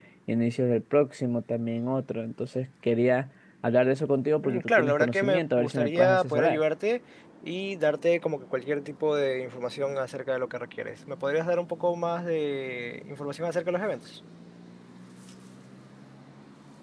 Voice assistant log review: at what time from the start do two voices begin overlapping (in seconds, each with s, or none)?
4.4 s